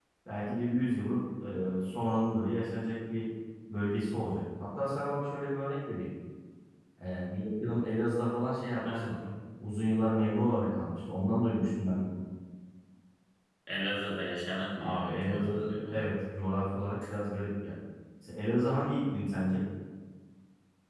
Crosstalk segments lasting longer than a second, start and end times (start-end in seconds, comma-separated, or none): 14.8-16.1